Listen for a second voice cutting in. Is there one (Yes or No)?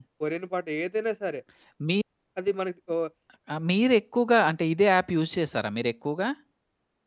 No